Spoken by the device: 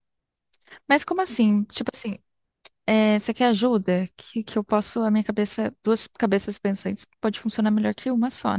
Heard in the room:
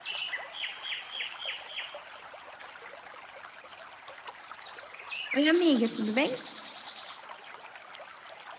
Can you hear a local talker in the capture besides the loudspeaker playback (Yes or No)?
Yes